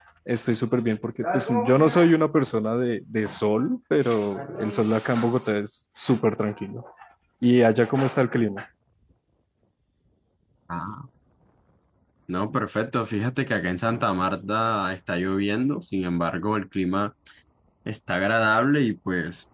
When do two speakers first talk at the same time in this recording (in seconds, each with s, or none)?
none